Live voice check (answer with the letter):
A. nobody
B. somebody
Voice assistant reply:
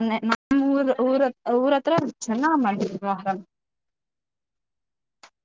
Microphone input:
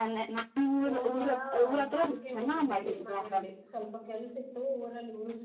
B